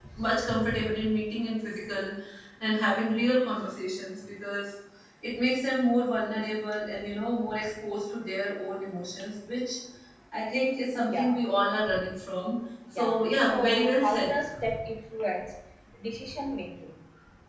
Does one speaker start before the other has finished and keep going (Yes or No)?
Yes